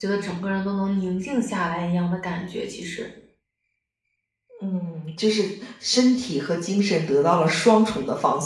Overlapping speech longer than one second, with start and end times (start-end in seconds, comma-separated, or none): none